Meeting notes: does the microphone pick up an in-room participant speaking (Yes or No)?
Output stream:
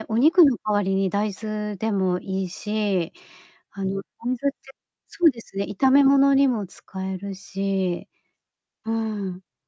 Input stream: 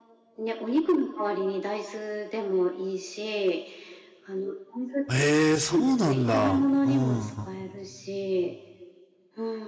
Yes